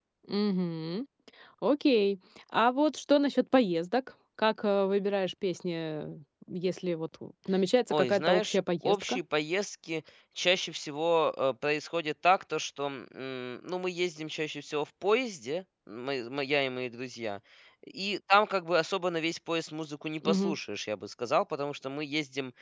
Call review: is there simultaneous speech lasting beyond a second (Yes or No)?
Yes